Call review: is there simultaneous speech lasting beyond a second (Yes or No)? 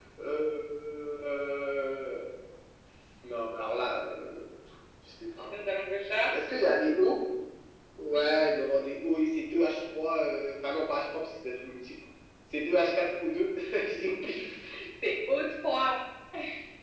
No